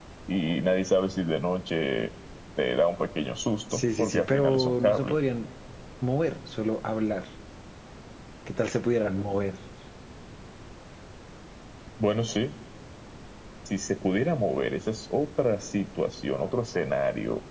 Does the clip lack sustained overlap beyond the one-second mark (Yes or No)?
No